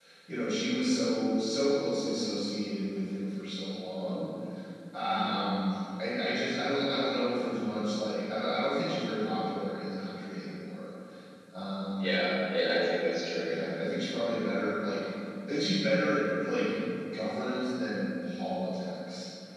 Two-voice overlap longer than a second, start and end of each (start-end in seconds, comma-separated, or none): none